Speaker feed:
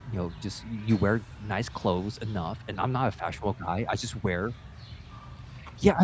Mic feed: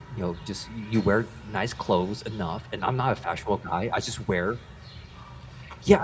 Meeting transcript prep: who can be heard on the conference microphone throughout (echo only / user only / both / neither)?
echo only